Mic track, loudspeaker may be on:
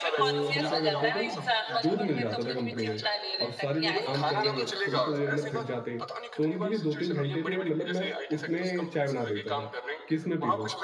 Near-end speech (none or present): present